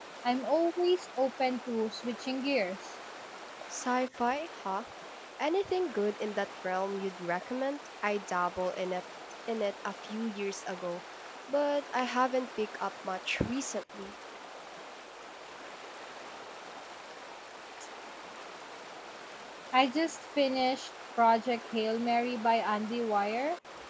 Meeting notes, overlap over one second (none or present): none